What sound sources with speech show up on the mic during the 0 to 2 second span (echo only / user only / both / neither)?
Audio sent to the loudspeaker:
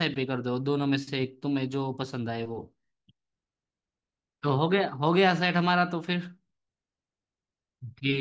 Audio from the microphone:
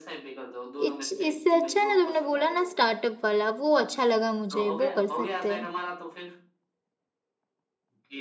both